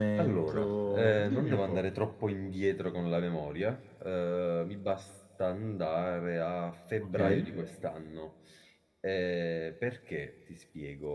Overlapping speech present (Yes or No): Yes